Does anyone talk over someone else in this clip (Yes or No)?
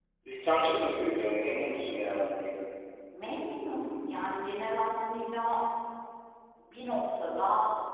No